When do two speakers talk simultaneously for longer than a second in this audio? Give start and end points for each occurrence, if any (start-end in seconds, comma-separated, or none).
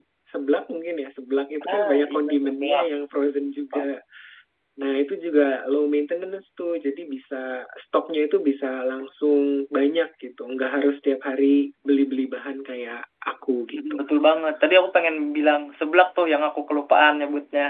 1.7-2.9